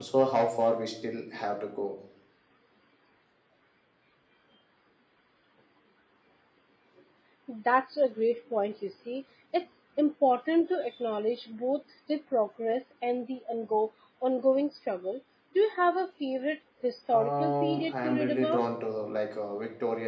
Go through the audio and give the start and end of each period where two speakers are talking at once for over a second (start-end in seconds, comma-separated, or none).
17.1-18.7